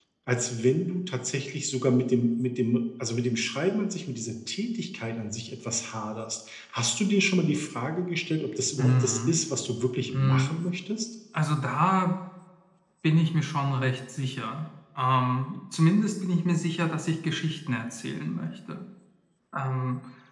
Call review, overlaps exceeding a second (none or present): none